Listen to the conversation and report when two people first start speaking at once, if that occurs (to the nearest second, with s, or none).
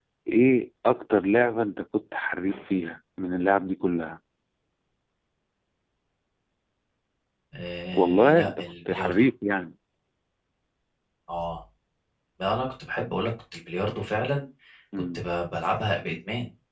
8 s